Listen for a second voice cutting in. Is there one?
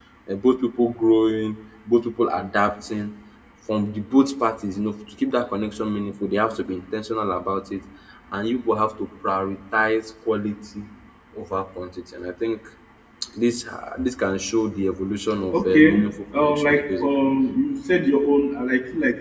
Yes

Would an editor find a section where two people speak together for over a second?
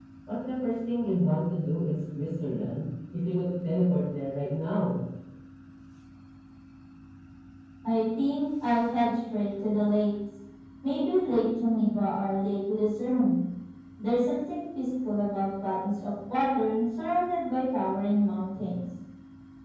No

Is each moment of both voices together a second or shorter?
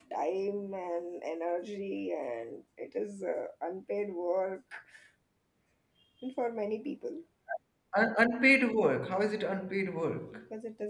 Yes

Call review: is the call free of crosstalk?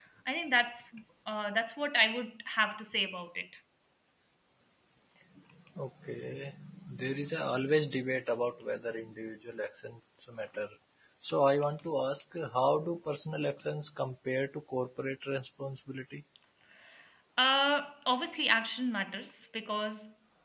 Yes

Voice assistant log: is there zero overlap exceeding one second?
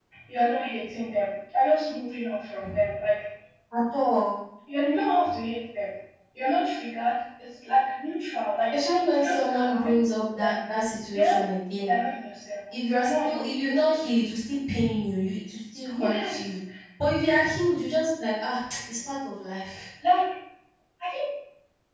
No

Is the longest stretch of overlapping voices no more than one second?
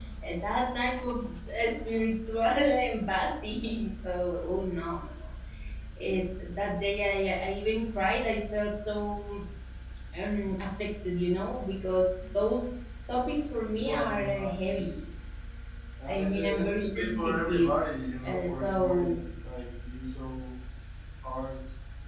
No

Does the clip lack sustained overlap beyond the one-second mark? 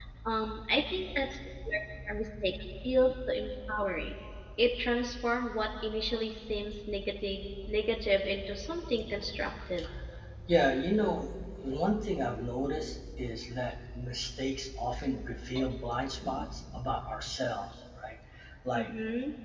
Yes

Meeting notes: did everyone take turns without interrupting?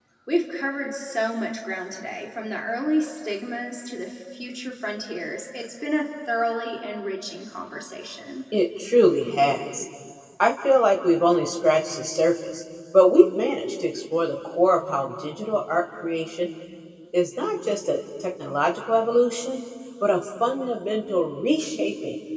Yes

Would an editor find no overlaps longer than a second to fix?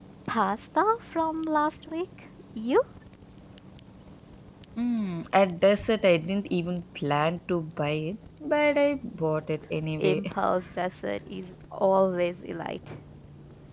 Yes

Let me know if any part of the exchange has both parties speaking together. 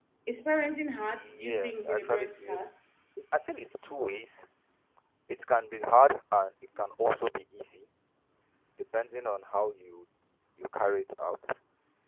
Yes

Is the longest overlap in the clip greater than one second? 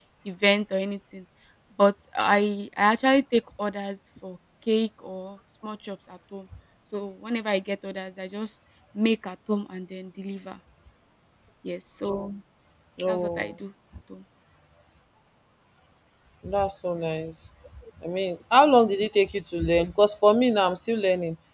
No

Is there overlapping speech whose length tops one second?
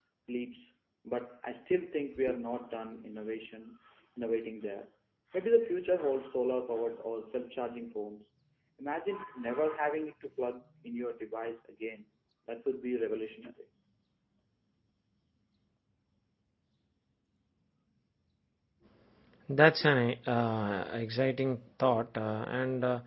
No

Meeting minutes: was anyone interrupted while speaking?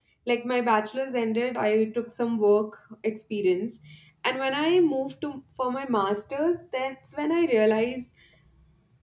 No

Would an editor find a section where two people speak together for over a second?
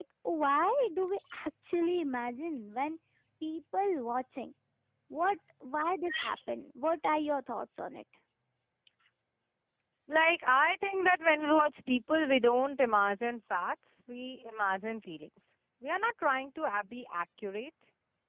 No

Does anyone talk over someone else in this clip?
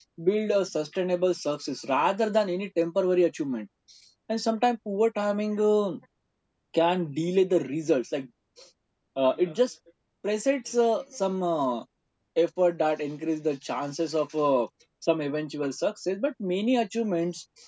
No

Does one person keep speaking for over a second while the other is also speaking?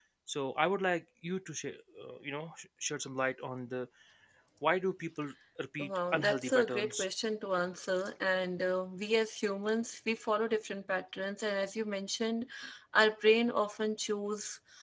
Yes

